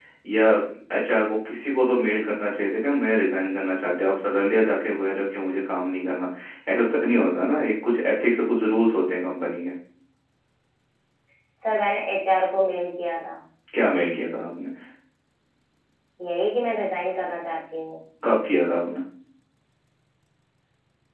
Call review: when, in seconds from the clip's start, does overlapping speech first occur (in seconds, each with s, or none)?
none